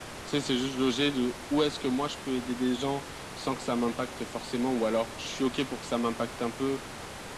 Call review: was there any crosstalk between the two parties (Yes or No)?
No